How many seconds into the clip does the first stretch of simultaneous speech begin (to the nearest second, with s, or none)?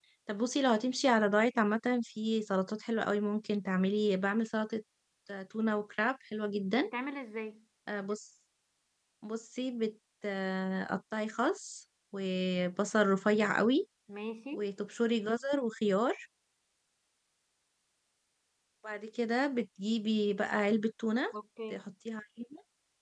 none